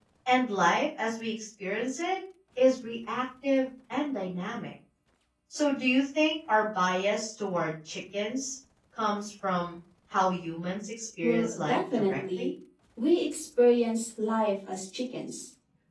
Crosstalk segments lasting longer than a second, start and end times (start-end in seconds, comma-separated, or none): 11.2-12.5